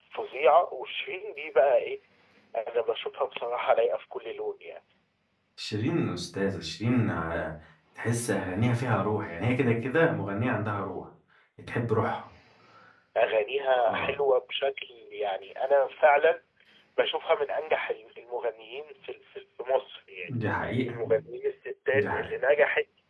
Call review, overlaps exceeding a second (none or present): none